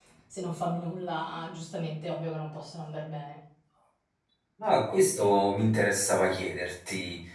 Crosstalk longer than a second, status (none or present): none